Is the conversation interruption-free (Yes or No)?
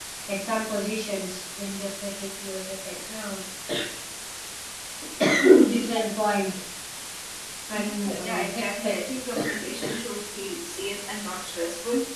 No